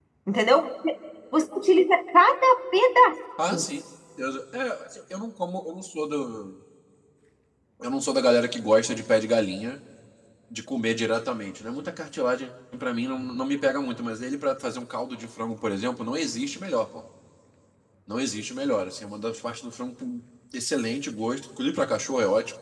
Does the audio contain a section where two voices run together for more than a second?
No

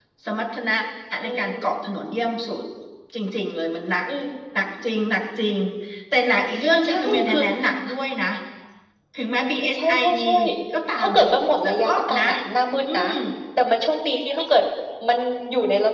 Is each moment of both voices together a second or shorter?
No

